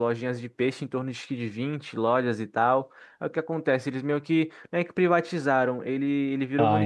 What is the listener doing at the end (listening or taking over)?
listening